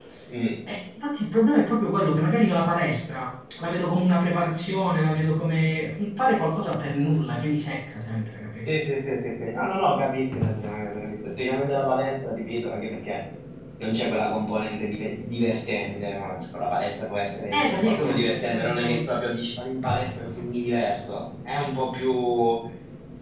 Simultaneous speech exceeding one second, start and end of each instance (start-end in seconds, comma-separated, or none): 17.5-19.0